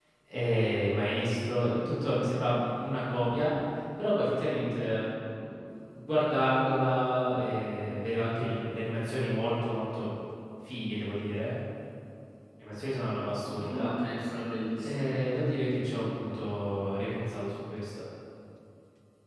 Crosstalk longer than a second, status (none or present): none